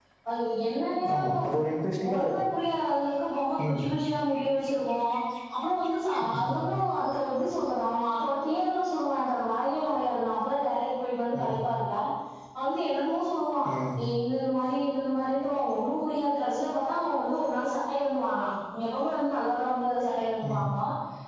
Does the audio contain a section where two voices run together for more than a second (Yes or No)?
No